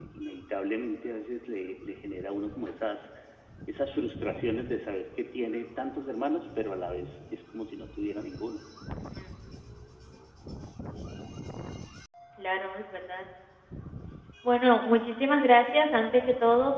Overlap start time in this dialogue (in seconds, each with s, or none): none